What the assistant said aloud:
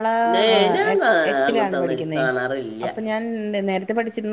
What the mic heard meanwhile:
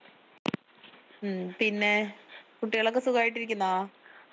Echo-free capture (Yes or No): Yes